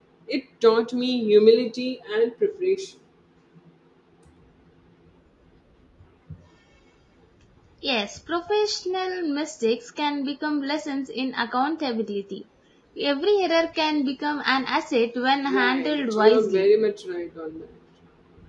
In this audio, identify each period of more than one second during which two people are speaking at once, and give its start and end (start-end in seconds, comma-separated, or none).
15.5-16.7